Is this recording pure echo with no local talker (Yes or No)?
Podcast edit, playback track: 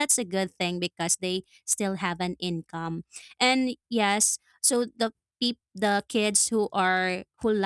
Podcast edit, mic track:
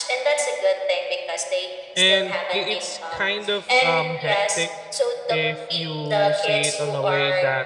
No